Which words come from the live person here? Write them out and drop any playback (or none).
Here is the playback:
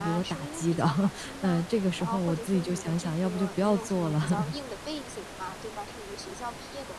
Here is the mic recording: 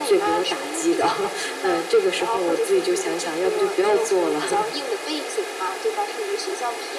none